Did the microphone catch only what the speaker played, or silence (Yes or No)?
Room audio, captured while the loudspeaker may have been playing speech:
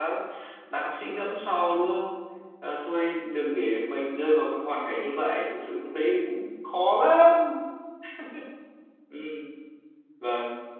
No